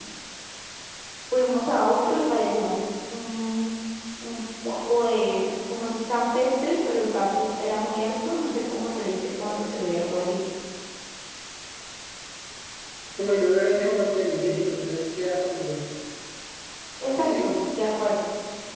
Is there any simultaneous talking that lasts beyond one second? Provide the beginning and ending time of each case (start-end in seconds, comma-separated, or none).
none